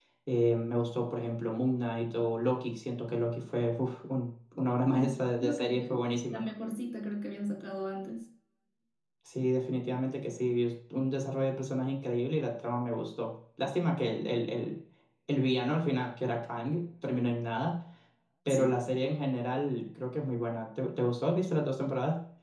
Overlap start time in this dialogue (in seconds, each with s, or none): 4.9 s